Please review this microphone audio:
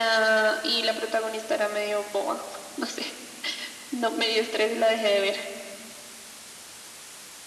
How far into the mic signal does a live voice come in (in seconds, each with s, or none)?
none